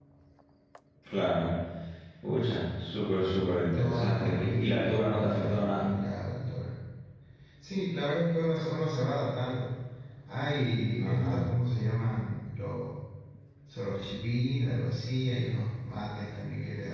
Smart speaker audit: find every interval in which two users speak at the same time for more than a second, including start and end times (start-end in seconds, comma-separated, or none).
3.7-5.9